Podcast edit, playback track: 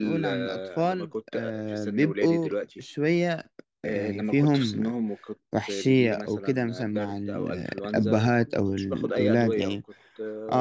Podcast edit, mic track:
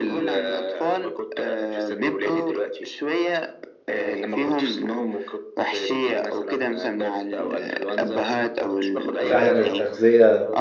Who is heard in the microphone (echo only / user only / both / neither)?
both